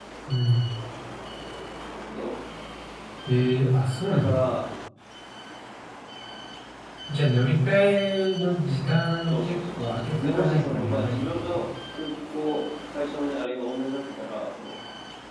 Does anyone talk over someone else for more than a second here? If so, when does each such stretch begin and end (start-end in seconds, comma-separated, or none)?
9.3-11.6